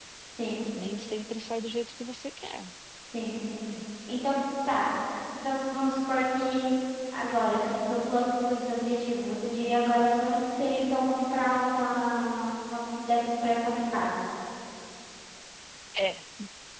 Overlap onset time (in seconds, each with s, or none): none